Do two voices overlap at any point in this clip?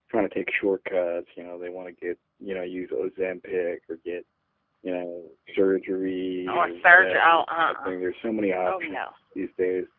Yes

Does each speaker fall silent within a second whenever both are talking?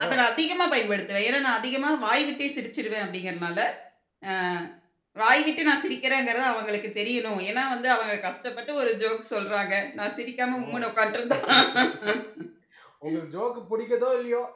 Yes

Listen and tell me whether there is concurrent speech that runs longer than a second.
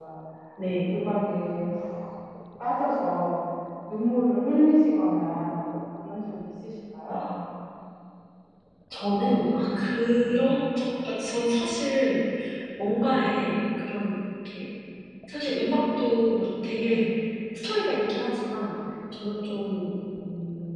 No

